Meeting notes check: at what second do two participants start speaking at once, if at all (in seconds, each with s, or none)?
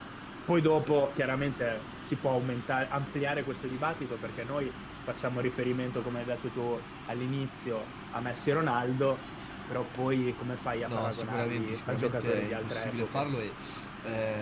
10.8 s